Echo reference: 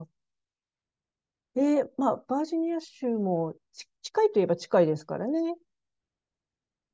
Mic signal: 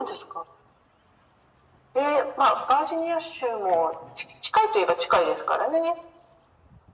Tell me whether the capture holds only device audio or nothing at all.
Yes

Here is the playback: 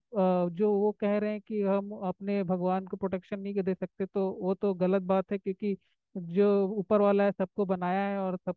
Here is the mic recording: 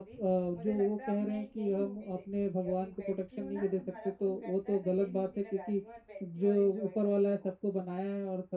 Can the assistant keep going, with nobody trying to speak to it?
No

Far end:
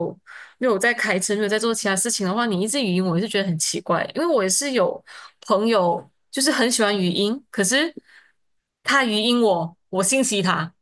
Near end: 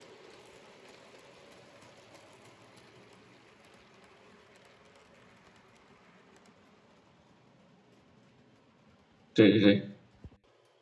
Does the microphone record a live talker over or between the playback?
Yes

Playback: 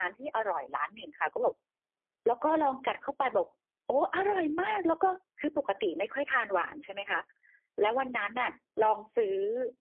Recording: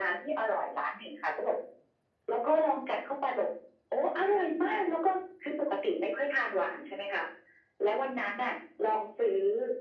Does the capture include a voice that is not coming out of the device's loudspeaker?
No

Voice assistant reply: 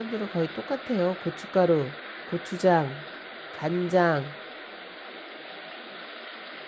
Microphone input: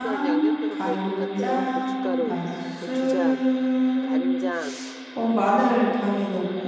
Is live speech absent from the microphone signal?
No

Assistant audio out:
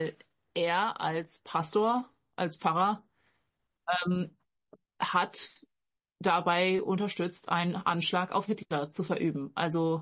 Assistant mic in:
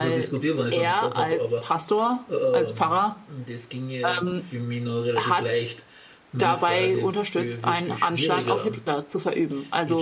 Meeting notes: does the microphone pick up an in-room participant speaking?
Yes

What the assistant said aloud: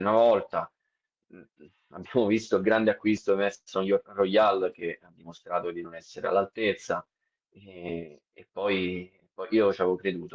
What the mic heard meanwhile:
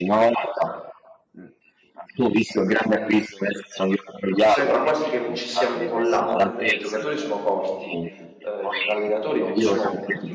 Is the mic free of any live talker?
No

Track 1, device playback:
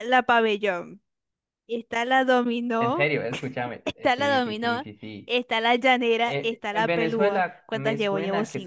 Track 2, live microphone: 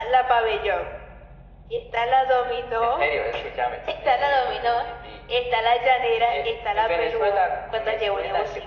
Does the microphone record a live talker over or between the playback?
No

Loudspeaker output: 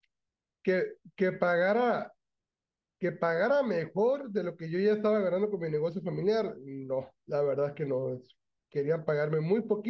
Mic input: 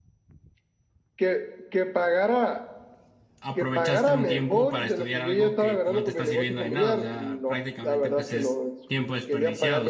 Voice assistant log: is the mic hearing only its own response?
No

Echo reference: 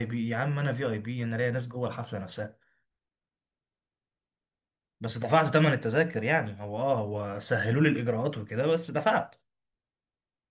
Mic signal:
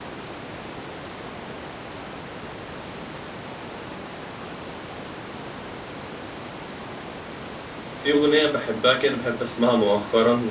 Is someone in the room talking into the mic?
Yes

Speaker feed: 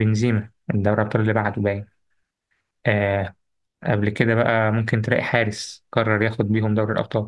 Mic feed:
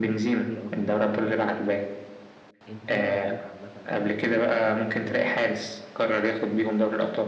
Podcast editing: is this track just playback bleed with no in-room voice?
No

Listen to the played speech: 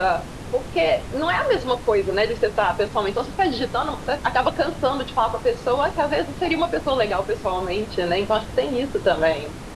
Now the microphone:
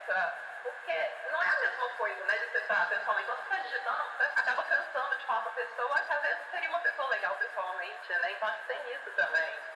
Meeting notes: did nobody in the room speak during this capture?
Yes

